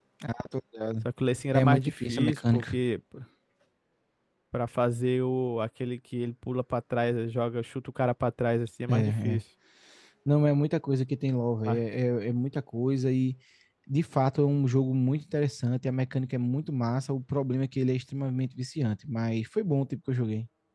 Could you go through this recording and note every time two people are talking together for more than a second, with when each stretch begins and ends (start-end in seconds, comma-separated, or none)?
1.5-2.8